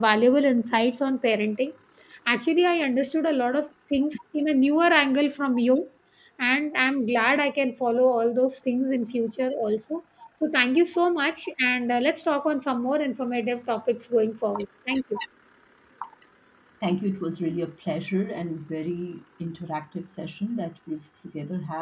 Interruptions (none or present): none